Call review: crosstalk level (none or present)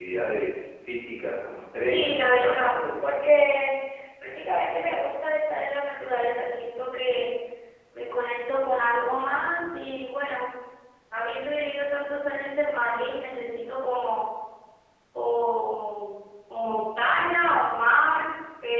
present